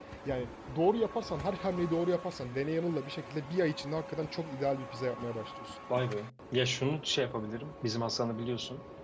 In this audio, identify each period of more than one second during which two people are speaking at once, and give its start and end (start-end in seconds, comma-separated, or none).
none